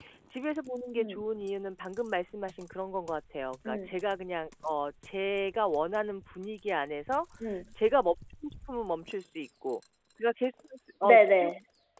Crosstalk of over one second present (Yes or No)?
No